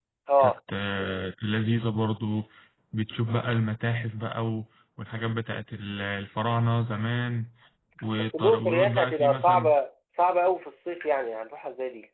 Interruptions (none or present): present